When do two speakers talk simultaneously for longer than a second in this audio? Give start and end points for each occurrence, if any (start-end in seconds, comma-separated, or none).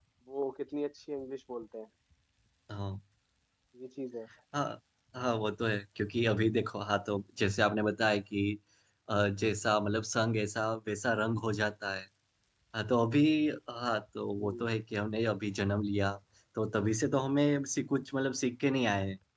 none